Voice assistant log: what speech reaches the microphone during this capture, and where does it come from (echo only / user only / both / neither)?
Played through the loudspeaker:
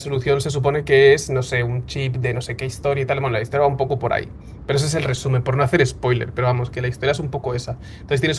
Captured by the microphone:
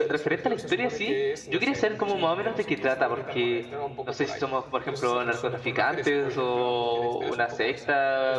both